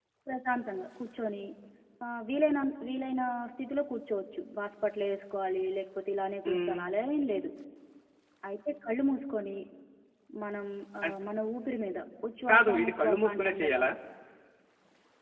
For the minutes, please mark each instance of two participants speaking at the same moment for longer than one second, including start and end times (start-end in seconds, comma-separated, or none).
12.5-13.8